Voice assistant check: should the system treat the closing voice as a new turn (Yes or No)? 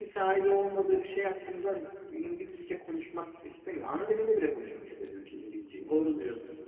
Yes